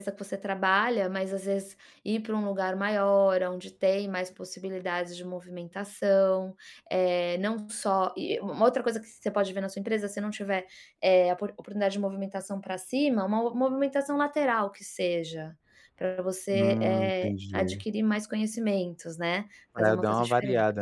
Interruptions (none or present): present